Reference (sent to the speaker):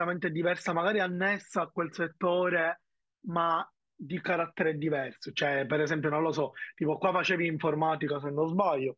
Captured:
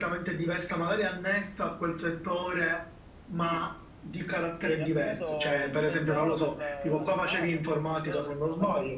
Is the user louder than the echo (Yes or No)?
No